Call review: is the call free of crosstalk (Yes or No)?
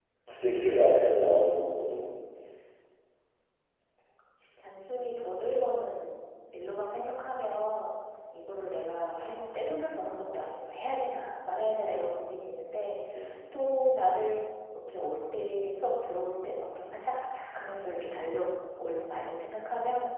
Yes